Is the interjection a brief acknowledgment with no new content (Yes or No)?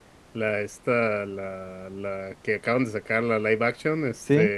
Yes